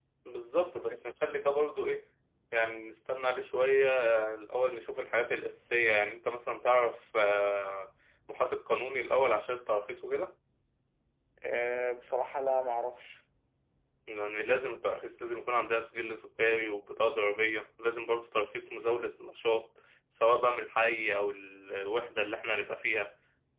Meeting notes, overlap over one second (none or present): none